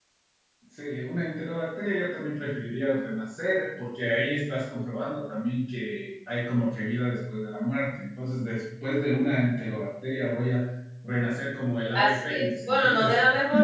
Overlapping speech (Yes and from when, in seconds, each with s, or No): Yes, from 12.0 s